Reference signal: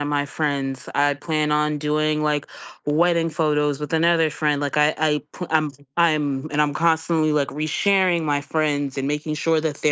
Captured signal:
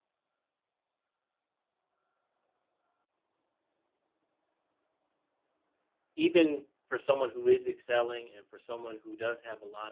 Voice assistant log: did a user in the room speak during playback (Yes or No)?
Yes